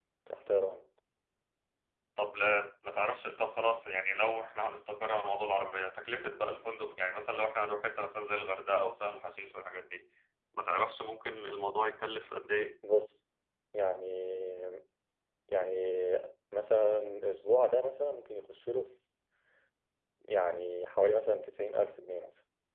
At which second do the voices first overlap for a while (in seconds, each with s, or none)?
none